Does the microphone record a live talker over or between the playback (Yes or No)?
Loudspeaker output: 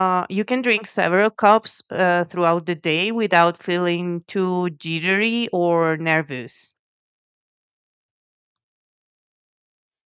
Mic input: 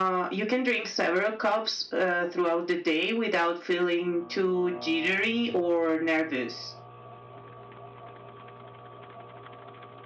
No